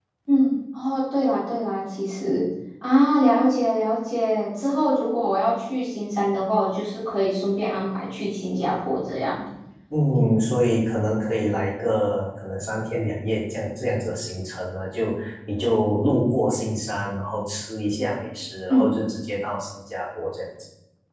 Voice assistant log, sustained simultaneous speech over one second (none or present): none